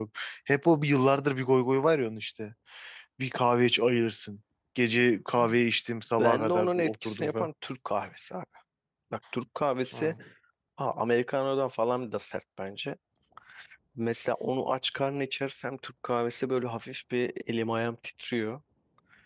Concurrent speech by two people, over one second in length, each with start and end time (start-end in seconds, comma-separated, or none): 6.2-7.5